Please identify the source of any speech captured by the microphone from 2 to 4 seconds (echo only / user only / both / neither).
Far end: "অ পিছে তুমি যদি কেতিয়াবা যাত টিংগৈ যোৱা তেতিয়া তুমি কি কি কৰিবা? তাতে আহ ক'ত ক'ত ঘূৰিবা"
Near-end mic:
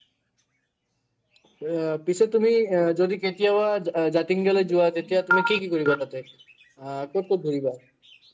echo only